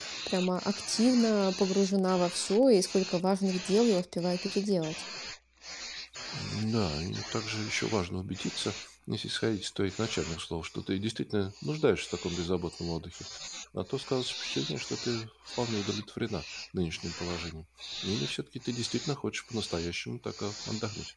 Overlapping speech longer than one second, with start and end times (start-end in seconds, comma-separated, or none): none